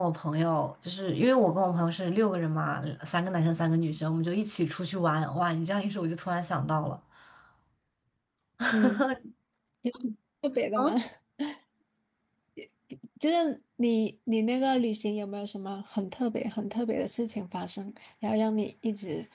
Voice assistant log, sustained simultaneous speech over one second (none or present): none